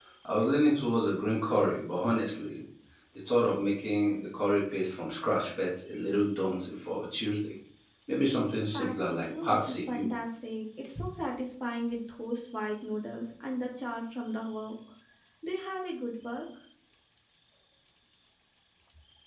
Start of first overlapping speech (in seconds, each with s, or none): 8.7 s